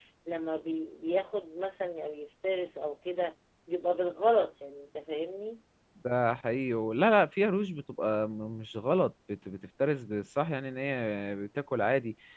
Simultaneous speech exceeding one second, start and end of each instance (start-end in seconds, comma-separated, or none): none